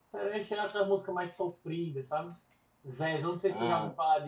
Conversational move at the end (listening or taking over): listening